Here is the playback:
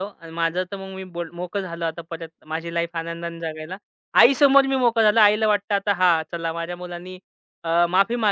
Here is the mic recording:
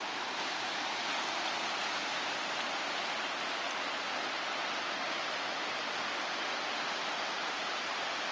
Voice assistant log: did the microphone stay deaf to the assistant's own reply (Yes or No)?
Yes